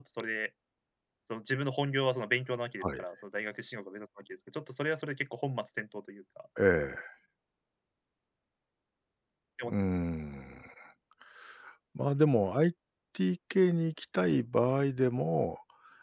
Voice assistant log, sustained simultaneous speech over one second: none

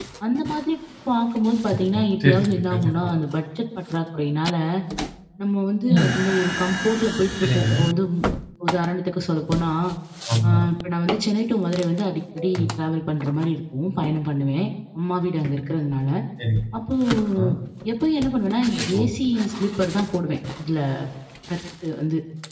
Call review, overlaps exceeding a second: present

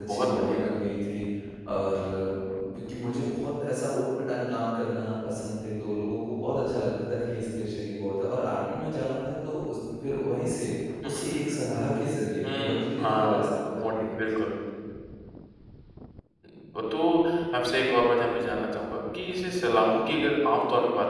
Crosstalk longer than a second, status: present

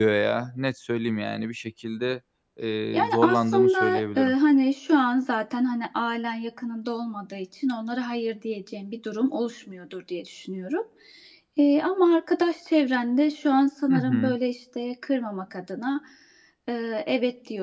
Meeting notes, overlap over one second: present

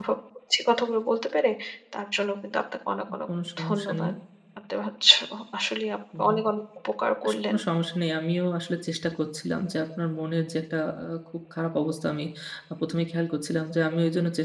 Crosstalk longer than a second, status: none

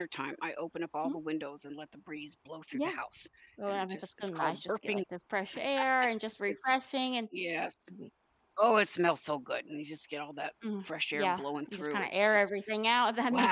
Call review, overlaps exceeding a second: present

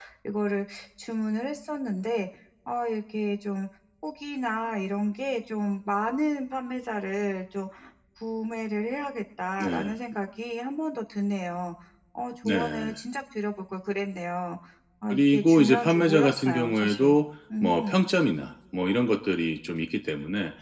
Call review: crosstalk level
present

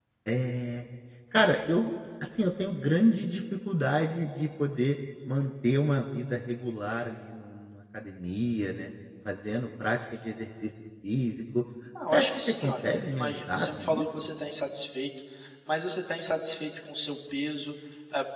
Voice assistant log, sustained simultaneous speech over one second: present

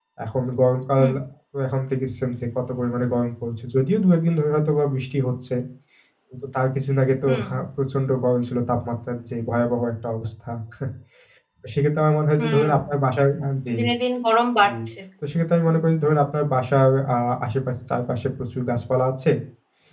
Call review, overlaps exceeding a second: none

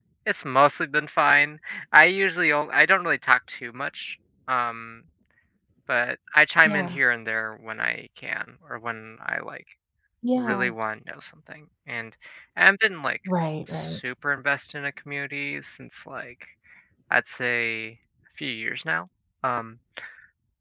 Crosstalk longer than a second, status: none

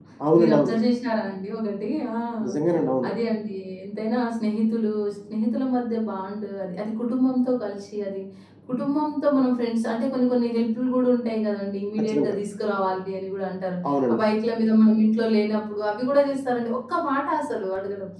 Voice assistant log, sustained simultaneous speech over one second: none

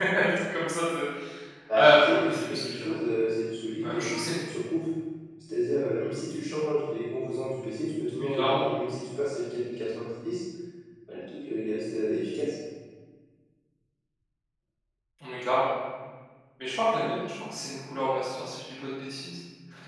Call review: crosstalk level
present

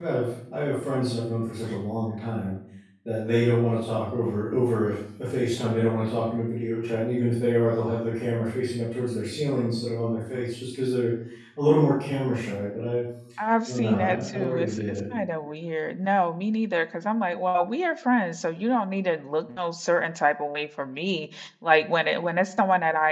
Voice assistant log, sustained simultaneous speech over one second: present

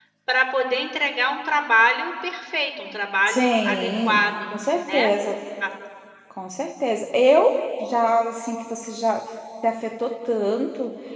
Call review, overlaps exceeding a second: present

